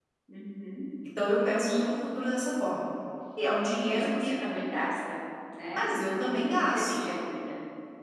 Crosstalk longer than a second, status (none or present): none